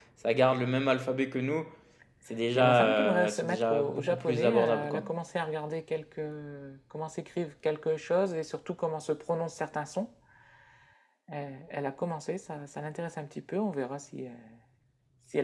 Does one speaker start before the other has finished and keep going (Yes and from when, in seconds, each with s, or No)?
Yes, from 2.5 s